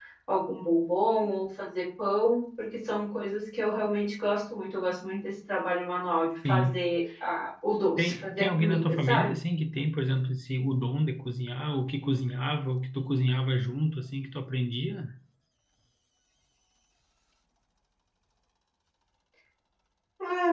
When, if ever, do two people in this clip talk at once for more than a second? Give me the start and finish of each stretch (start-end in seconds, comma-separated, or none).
8.0-9.3